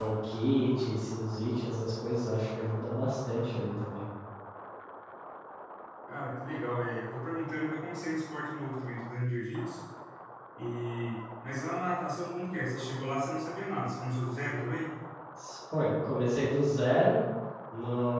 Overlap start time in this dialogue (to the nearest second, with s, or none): none